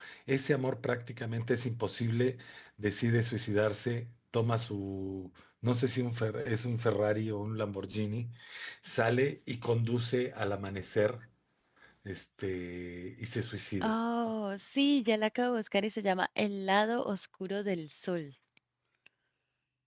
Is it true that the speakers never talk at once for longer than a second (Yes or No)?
Yes